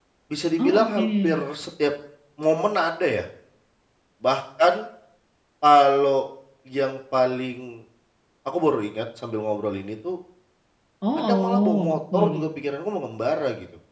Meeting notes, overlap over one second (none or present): present